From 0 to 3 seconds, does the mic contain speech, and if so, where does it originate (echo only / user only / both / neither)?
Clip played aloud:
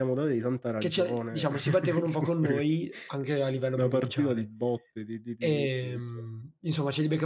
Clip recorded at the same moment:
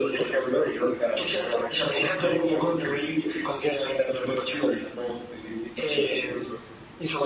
echo only